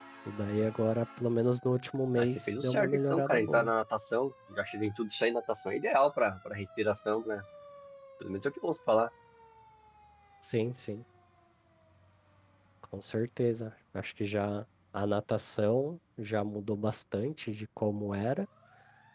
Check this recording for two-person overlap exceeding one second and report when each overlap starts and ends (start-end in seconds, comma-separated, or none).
2.1-3.7